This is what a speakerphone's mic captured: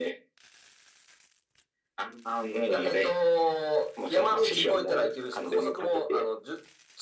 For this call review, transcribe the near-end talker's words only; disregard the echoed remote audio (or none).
あと、まあ、撮り鉄